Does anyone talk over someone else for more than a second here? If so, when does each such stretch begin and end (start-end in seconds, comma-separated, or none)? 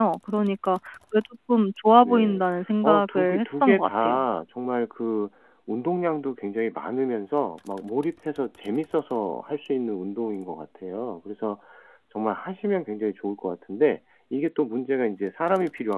2.8-4.2